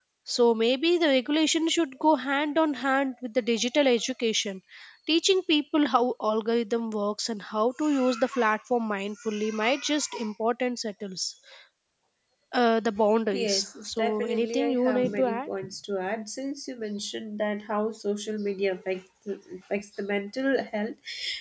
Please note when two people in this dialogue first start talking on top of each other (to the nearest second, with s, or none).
13 s